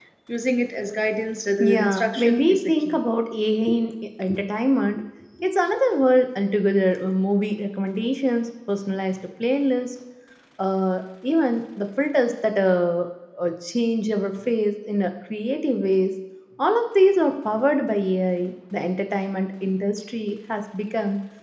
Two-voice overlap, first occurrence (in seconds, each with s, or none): 1.6 s